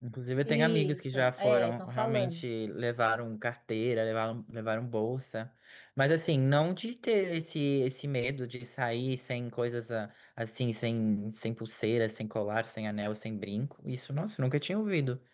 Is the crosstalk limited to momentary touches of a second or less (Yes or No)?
No